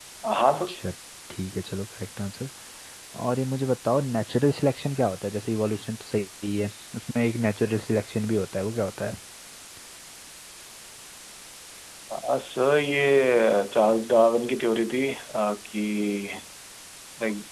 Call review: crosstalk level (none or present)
none